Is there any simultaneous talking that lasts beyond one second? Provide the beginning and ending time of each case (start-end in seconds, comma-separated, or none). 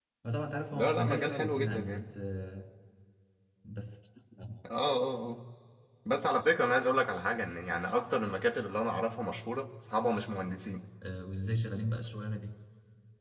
0.7-2.1